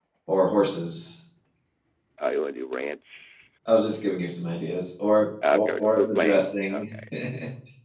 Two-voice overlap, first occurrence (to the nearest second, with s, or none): 5 s